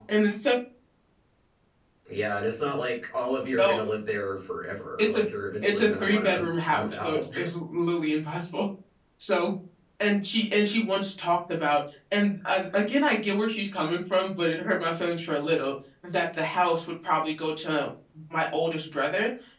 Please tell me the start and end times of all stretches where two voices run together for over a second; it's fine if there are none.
5.6-7.3

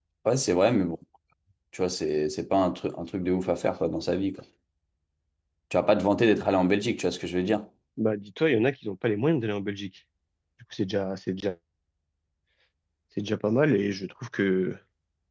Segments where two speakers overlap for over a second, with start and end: none

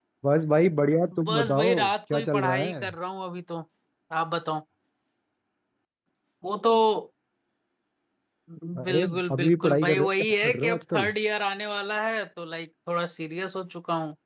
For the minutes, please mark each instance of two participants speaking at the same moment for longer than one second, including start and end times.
1.2-2.8, 8.9-11.1

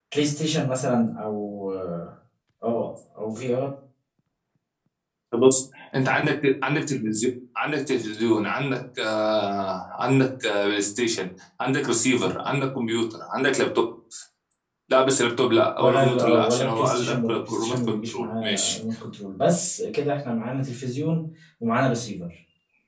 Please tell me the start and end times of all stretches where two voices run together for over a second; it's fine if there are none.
15.8-18.8

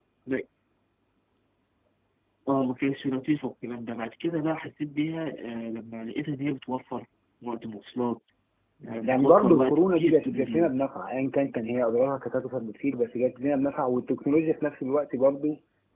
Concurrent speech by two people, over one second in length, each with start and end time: 9.0-10.7

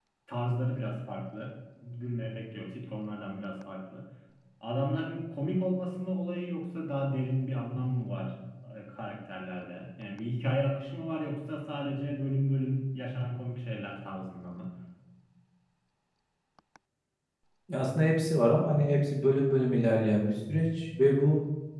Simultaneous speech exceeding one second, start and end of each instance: none

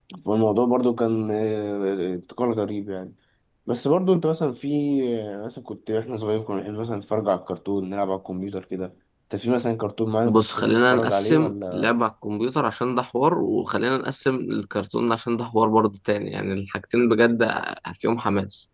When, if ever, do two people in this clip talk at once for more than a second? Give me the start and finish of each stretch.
10.2-11.9

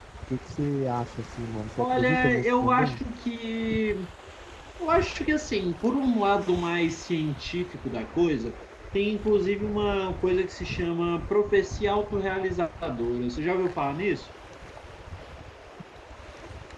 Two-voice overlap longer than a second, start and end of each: 1.8-3.0

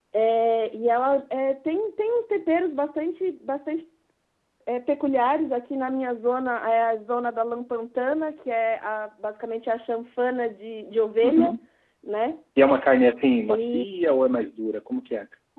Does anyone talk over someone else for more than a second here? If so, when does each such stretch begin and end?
none

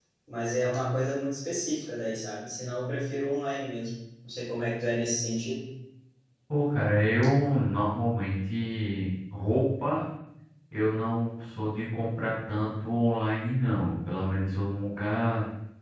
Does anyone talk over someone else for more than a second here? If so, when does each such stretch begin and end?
none

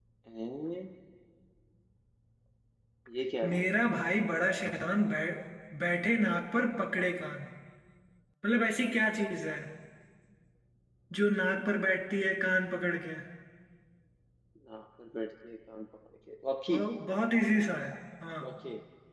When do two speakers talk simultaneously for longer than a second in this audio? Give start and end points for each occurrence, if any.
none

